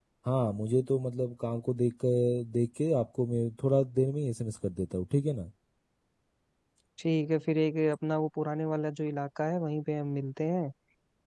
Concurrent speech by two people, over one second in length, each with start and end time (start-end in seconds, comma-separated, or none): none